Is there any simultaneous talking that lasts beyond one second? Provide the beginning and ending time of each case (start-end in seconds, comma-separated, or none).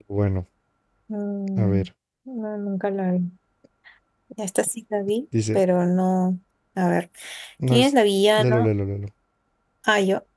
none